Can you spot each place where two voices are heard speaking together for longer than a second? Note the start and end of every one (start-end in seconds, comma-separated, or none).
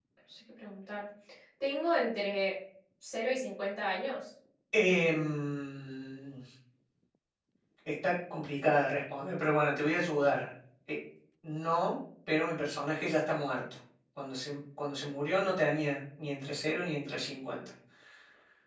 none